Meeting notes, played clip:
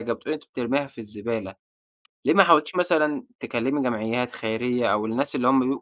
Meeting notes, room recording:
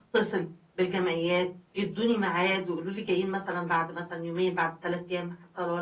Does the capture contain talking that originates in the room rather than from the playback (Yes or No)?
Yes